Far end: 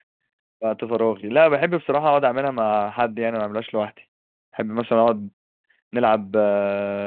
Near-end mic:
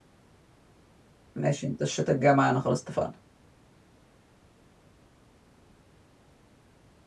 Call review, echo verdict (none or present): none